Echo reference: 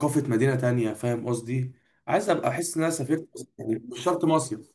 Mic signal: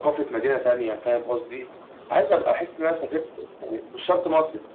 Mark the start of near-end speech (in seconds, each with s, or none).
none